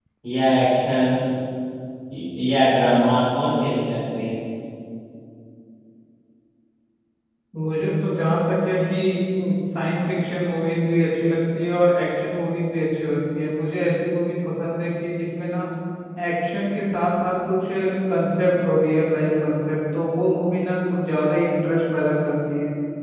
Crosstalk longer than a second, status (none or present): none